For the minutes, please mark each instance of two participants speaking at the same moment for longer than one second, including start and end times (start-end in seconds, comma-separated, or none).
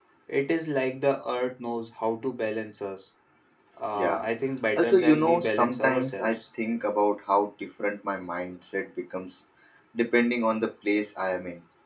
4.8-6.4